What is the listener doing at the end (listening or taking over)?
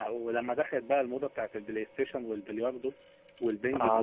taking over